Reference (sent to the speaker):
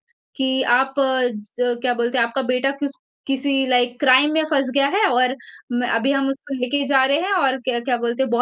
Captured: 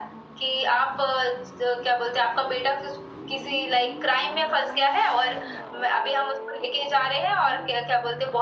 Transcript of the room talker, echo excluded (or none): none